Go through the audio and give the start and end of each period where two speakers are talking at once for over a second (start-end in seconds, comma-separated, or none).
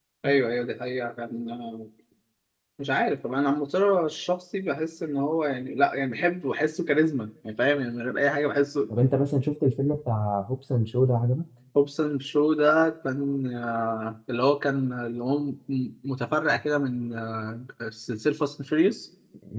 none